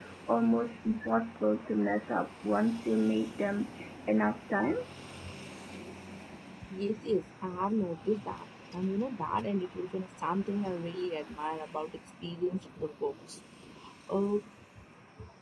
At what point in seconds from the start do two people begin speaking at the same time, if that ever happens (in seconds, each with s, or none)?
none